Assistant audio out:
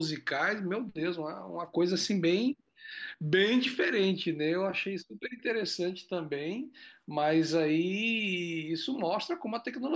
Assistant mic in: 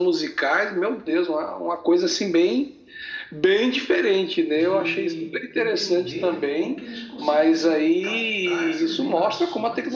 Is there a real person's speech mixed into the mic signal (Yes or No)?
Yes